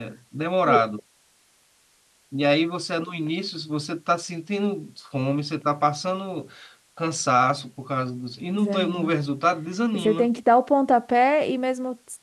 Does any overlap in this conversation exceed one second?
No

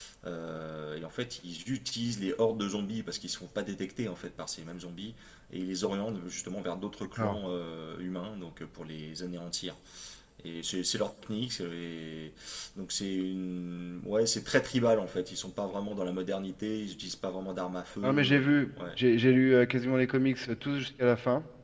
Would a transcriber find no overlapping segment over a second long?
Yes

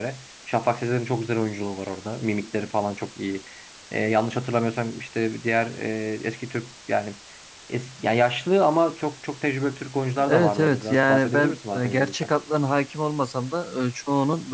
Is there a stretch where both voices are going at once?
Yes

